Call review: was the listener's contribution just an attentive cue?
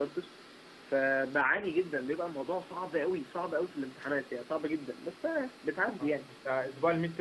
No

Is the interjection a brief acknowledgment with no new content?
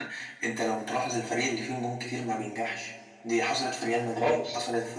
Yes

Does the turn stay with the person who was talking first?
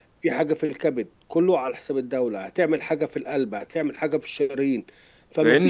No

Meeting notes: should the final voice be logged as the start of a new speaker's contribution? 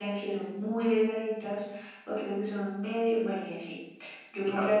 No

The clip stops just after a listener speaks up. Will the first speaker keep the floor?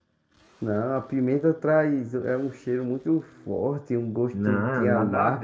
No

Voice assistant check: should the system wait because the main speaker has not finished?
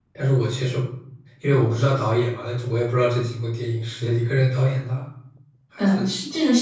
No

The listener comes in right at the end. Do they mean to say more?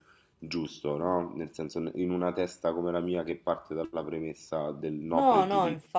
Yes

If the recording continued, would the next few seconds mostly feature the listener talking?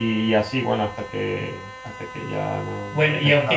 Yes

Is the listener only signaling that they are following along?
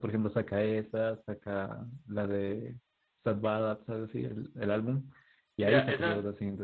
No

